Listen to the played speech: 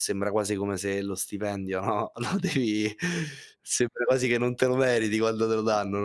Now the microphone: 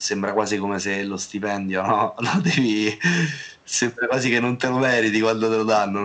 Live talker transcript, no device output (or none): none